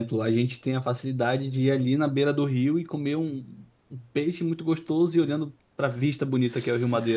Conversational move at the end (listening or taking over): taking over